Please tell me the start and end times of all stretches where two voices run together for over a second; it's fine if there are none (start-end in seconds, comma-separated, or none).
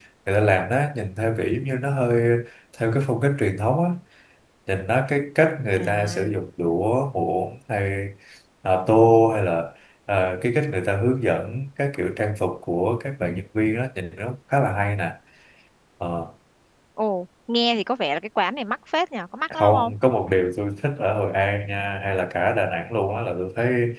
none